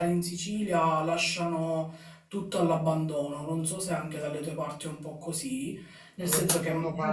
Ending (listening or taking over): taking over